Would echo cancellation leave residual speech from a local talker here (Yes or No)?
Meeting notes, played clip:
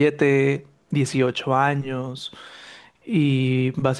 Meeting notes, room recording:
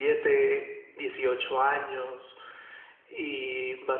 No